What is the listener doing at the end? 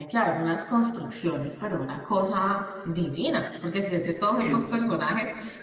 listening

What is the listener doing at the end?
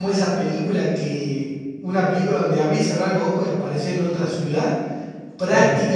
listening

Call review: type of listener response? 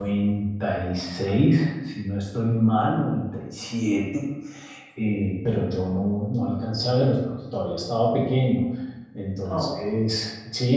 listening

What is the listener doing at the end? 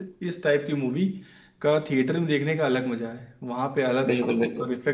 listening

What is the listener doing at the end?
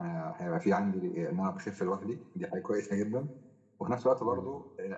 listening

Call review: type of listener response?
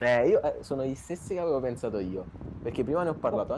listening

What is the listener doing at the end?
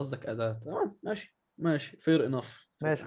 taking over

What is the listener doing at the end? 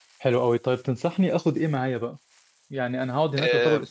listening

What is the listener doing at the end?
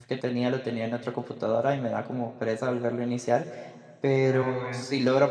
listening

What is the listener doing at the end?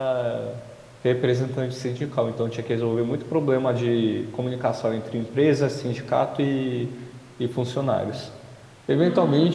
listening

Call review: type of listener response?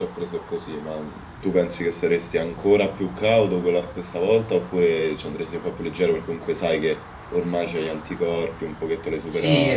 taking over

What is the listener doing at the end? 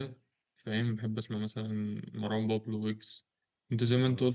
listening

